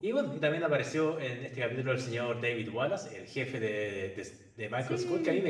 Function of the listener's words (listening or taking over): listening